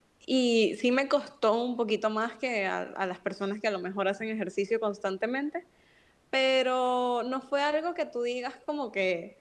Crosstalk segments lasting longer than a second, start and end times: none

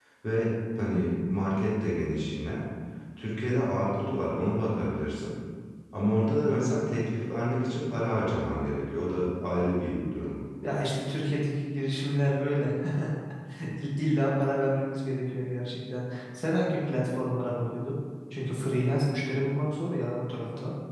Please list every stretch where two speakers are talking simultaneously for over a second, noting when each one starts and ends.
none

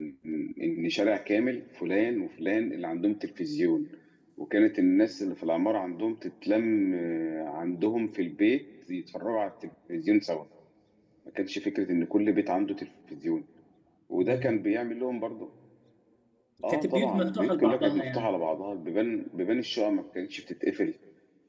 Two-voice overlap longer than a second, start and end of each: 16.7-18.3

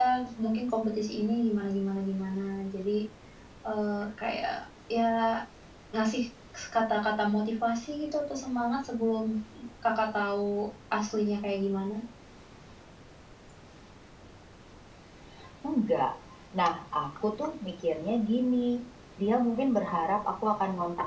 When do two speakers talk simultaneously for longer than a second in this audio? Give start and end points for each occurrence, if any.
none

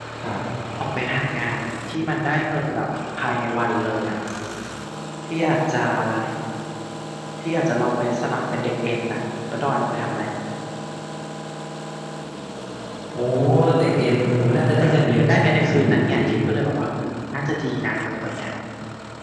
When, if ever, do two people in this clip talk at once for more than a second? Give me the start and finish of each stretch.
14.8-16.2

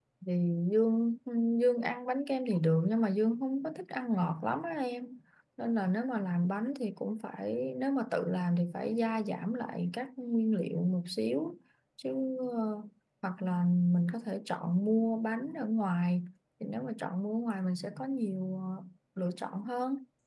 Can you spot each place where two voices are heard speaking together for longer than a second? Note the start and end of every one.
none

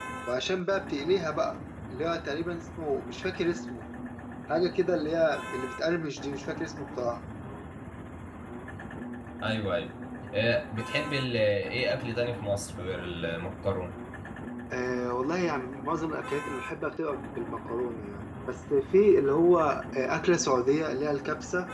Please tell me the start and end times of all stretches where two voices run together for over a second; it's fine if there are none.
none

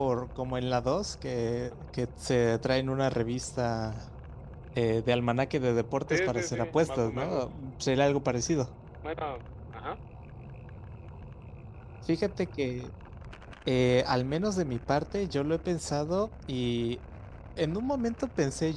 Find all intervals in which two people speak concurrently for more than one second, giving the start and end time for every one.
6.1-7.6

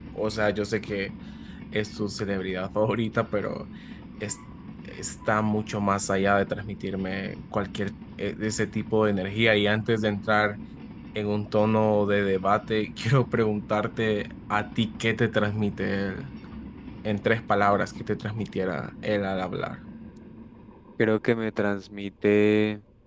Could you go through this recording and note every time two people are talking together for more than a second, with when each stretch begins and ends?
none

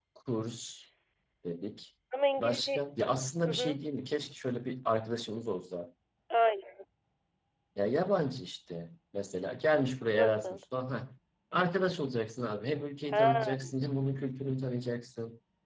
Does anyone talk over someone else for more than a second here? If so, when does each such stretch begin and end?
none

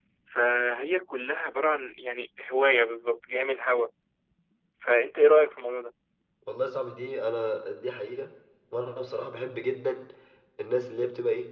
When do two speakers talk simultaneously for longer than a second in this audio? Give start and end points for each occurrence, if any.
none

